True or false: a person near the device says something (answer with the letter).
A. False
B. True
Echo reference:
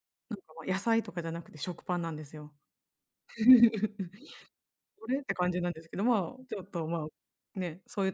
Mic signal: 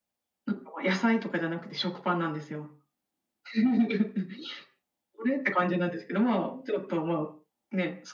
A